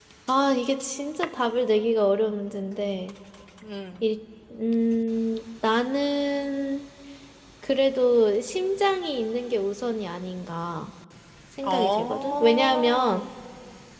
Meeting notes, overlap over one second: present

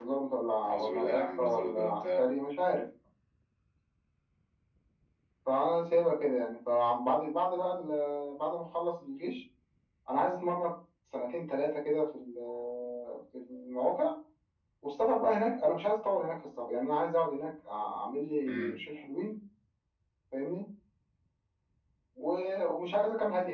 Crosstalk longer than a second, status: present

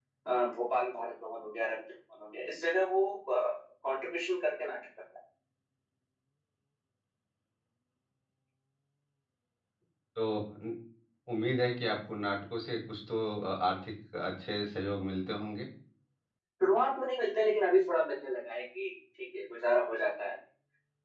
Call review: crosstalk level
none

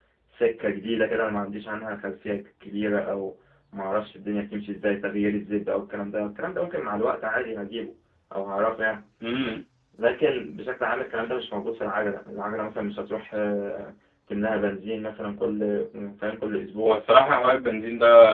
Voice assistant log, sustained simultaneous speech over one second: none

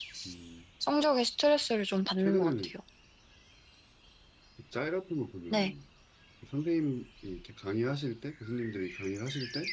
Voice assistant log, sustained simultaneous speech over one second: none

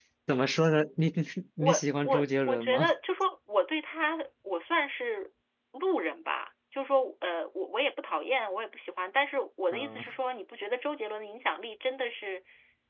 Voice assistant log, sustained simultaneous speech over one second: present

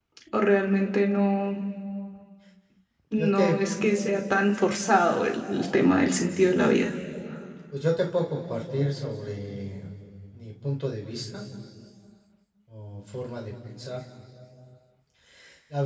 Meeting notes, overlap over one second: none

